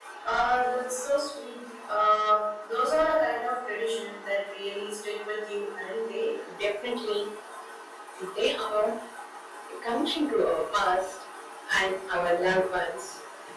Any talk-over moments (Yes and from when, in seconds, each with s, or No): No